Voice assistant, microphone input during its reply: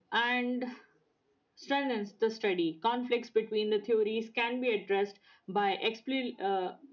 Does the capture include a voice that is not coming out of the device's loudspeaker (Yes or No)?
No